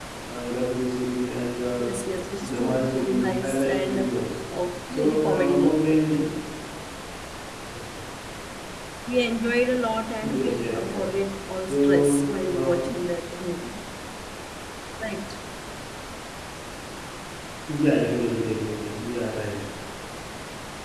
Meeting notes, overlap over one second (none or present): present